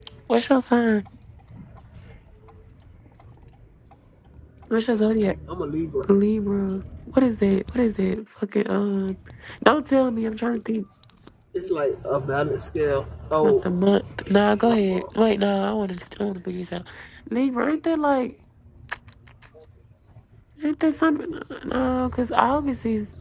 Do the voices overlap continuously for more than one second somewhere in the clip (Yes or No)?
No